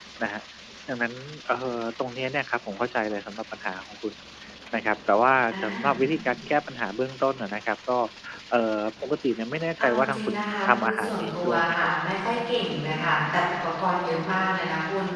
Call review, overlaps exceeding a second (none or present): present